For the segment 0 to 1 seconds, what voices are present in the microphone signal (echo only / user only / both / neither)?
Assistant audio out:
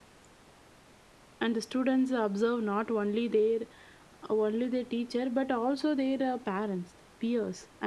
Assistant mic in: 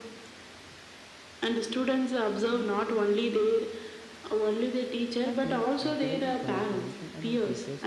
neither